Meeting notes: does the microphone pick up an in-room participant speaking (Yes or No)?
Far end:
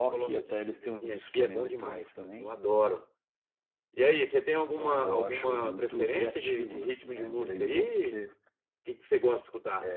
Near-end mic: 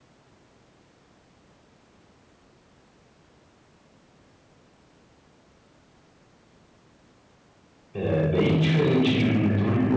Yes